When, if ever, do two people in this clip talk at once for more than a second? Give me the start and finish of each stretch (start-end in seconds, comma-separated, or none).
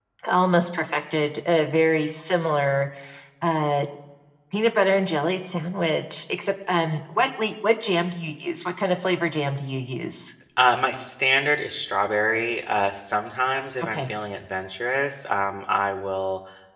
none